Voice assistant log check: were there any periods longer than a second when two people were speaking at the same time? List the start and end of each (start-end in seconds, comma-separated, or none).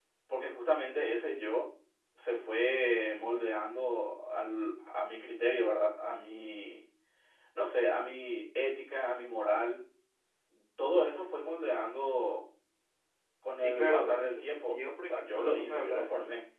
13.6-16.1